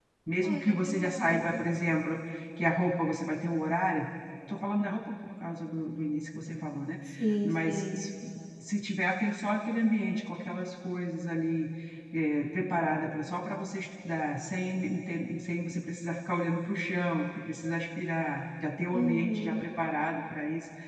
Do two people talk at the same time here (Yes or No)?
Yes